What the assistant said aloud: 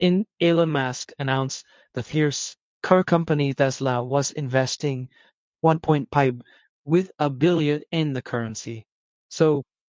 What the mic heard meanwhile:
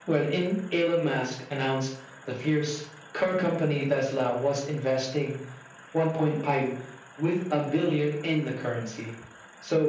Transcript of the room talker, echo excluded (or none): none